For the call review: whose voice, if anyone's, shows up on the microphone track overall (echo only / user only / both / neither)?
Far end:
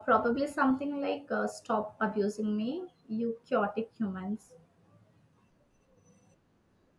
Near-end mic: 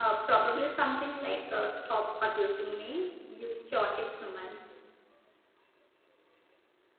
echo only